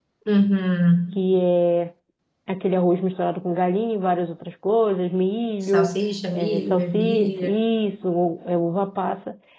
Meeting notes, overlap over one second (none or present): present